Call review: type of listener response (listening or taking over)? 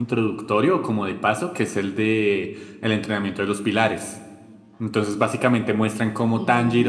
listening